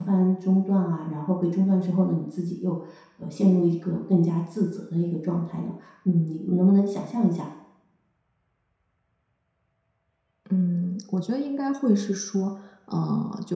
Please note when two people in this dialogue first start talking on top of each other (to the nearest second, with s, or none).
none